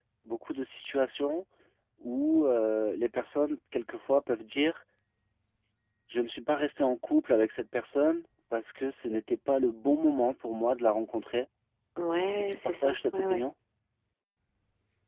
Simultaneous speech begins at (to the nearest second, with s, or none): 12 s